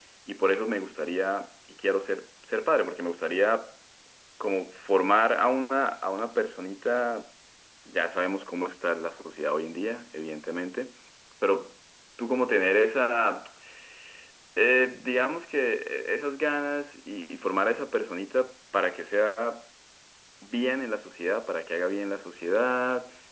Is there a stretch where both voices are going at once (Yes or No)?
No